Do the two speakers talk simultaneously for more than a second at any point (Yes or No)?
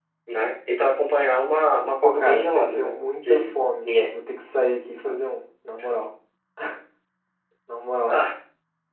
Yes